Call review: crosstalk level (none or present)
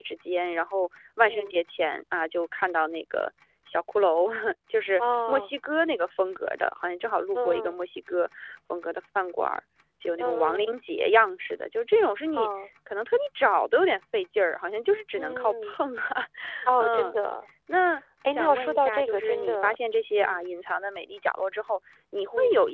present